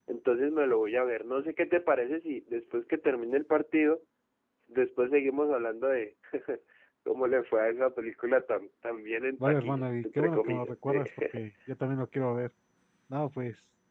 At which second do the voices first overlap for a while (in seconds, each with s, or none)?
9.4 s